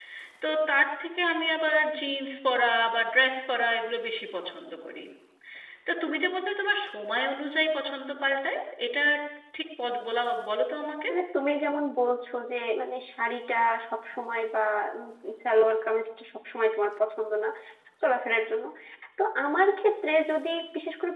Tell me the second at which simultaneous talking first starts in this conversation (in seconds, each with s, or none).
none